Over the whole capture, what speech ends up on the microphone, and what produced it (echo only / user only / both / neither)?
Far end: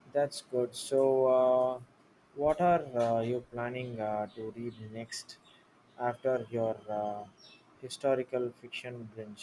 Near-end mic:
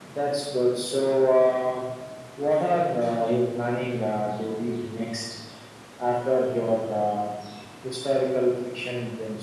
echo only